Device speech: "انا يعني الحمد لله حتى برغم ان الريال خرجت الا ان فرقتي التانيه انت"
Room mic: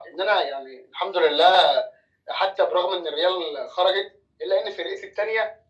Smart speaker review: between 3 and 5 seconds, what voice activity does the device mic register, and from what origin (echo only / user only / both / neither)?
echo only